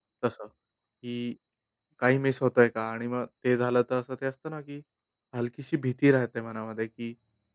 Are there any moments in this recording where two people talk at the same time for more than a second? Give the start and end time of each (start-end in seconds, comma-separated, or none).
none